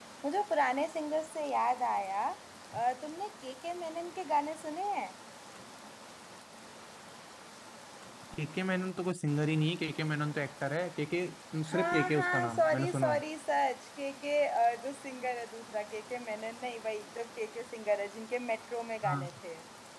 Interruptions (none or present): present